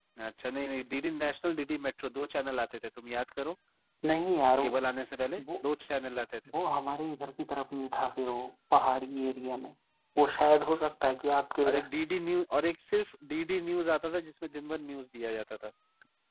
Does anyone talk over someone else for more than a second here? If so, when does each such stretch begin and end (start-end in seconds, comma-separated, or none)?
none